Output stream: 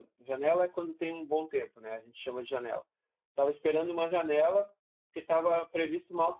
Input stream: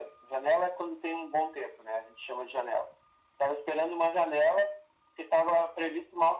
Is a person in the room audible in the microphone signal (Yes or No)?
No